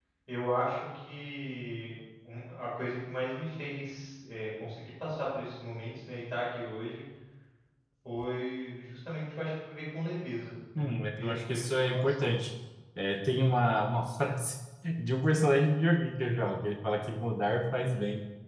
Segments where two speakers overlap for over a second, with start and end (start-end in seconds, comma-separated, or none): 10.8-12.3